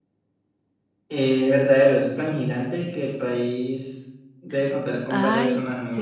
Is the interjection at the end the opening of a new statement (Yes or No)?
Yes